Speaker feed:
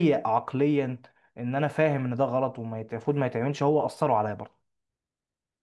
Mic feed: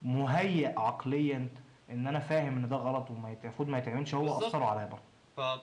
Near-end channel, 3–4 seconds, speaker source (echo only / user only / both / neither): echo only